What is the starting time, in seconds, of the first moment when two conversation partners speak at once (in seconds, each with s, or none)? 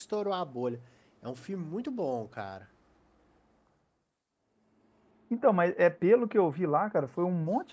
none